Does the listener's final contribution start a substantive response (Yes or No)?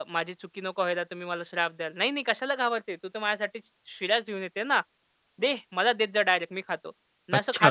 No